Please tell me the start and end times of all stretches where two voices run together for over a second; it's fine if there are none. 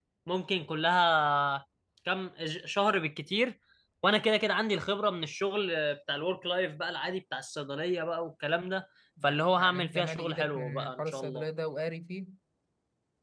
9.6-11.4

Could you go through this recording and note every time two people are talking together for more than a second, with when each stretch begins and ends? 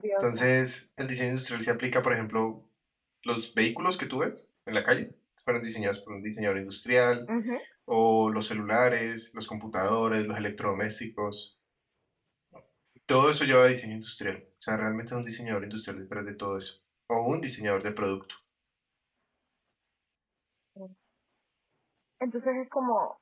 none

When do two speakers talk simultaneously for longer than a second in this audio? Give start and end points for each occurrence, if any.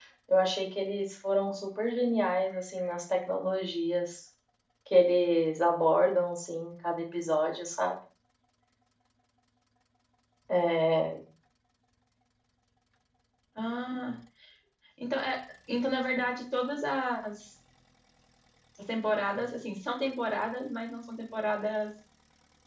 none

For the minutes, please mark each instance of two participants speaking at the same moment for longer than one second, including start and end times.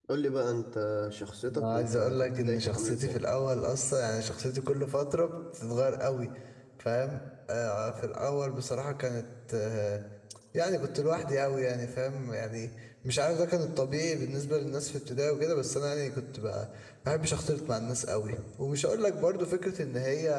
1.5-3.2

